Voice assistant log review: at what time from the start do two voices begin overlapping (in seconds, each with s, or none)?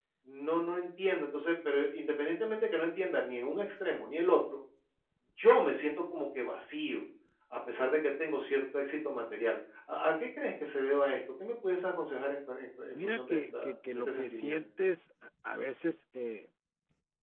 12.9 s